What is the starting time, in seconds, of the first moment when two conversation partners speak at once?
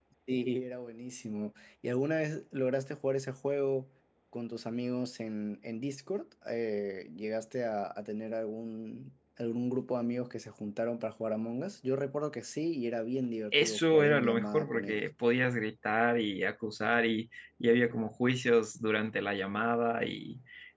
13.5 s

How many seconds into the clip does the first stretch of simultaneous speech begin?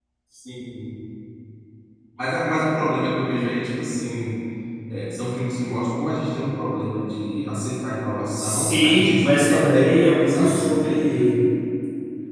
8.3 s

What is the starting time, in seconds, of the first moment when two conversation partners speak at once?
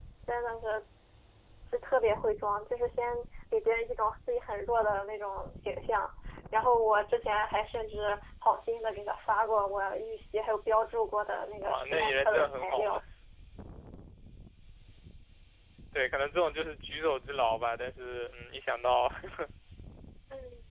11.6 s

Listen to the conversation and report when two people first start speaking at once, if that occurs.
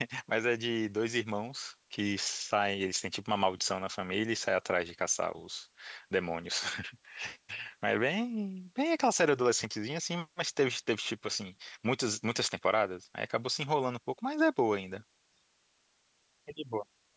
none

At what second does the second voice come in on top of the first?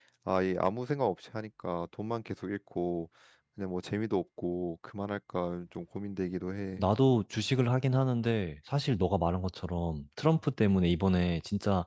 none

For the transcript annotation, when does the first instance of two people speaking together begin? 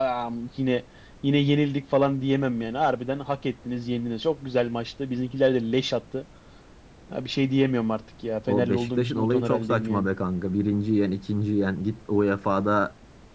8.5 s

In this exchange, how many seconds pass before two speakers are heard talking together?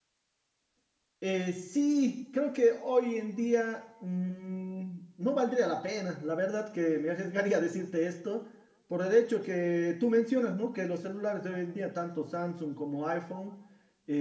none

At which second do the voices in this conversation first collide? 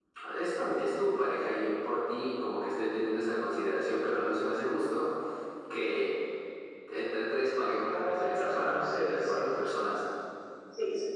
7.9 s

